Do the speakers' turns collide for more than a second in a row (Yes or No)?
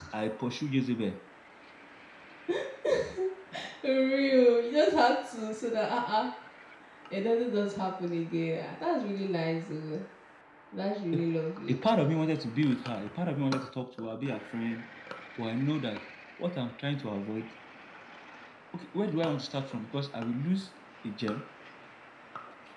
No